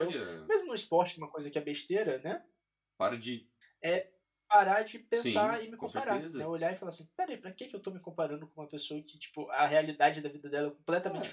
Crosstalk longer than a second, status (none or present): present